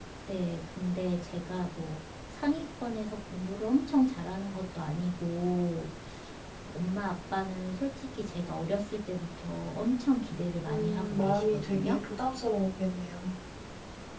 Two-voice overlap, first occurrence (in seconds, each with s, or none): 10.7 s